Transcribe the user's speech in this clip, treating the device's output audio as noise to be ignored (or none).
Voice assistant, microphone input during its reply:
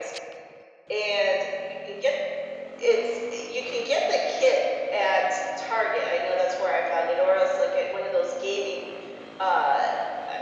none